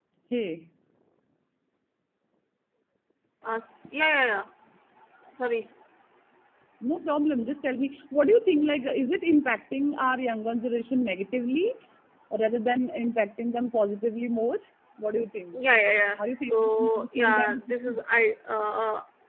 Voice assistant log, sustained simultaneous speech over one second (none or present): present